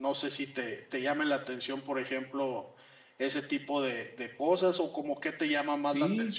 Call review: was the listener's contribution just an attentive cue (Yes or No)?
No